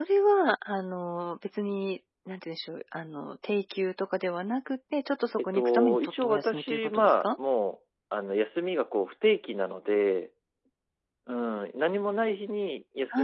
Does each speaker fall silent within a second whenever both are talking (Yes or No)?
No